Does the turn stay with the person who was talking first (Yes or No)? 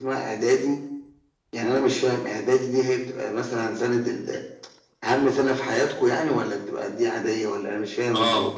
No